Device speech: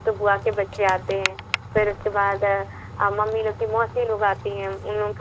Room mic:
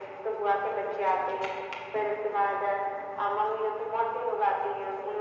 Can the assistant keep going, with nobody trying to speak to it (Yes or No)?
Yes